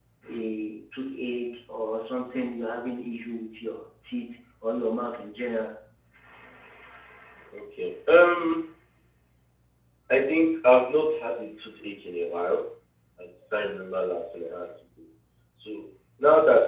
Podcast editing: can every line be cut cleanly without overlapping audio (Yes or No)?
Yes